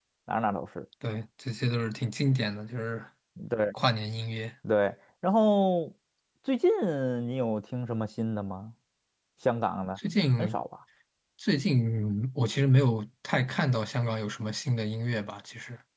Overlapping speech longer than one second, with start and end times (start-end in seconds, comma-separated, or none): none